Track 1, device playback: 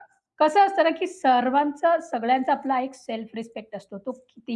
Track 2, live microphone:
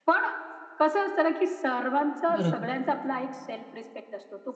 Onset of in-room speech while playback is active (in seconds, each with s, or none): 2.4 s